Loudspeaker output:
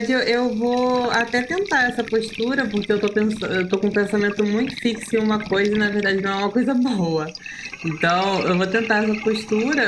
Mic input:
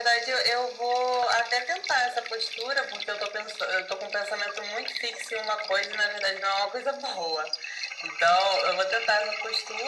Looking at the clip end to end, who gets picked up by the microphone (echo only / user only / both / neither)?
echo only